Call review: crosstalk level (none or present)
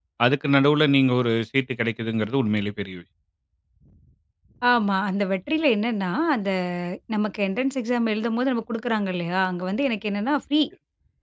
none